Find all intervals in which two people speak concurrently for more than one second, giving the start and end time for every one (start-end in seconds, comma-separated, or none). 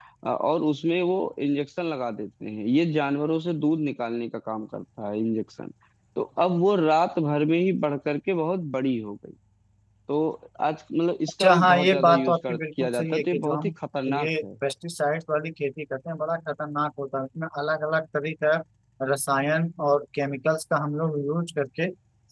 11.4-13.7